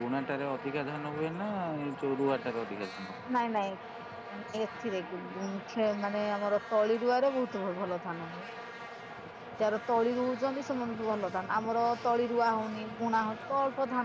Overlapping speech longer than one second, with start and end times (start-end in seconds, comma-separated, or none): none